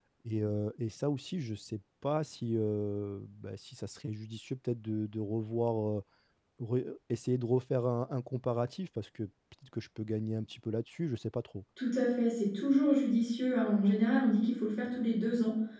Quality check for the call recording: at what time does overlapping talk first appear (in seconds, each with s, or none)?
none